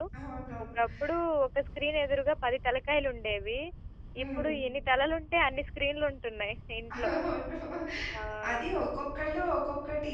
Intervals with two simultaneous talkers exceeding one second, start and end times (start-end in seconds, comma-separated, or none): none